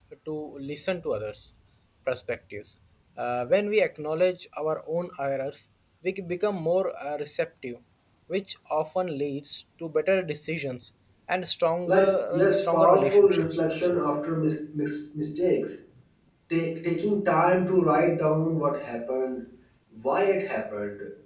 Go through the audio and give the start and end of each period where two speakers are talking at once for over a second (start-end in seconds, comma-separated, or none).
11.8-14.0